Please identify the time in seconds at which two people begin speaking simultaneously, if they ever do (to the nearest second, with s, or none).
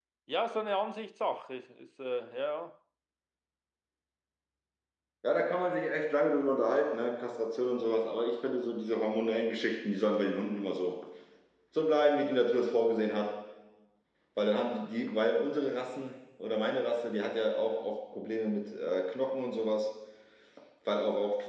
none